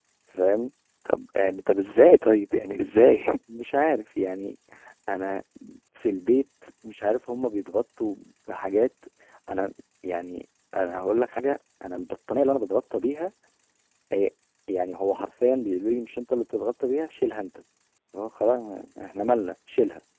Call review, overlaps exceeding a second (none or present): none